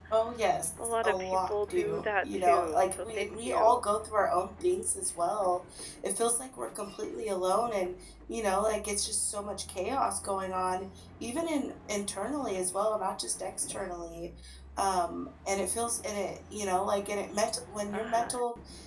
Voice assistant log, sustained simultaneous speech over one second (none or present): present